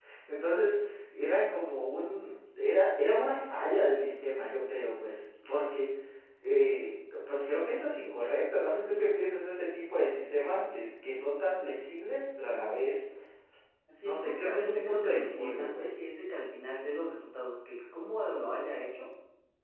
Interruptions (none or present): present